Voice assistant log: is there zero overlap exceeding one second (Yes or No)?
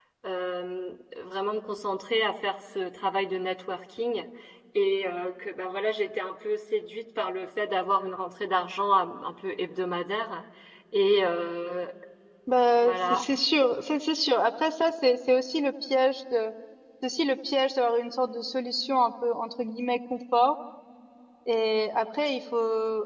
Yes